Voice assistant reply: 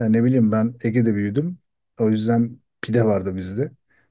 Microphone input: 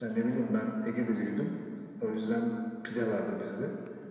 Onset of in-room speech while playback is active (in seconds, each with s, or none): none